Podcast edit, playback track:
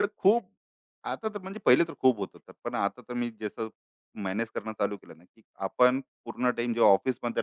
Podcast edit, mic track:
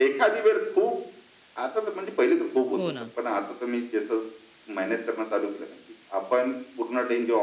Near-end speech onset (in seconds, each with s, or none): 2.8 s